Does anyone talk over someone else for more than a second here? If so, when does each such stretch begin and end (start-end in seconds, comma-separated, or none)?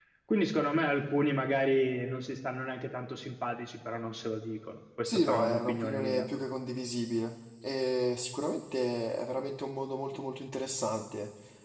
5.0-6.3